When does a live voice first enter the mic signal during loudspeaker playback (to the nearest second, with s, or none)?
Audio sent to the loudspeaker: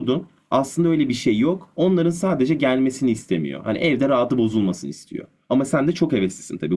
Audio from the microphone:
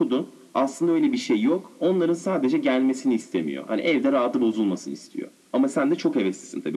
none